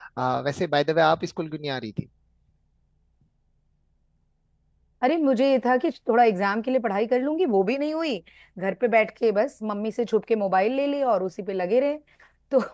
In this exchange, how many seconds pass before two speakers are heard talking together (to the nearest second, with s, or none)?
none